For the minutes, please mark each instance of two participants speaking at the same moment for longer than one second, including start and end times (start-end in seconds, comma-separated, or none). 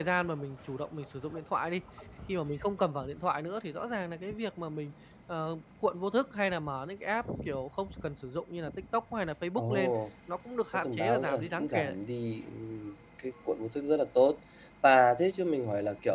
10.7-12.0